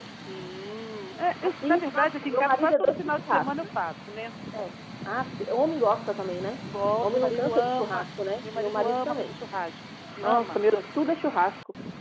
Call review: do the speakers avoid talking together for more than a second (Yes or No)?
No